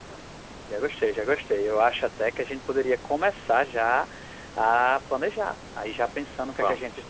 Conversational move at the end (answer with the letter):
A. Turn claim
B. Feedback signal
B